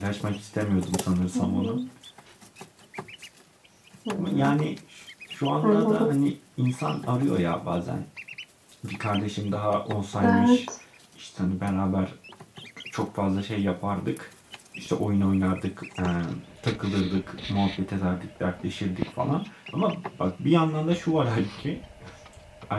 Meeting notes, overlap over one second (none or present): none